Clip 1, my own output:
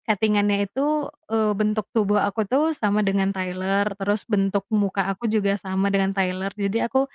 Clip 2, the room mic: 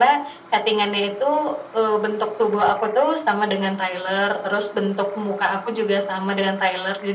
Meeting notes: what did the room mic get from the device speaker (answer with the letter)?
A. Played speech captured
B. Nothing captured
A